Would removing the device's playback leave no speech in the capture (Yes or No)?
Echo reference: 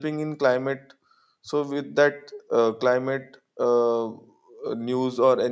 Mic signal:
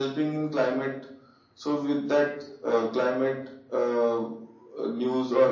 Yes